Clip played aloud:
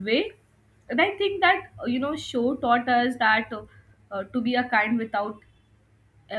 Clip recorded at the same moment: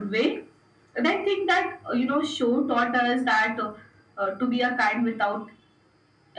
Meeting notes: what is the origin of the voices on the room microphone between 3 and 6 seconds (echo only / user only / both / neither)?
echo only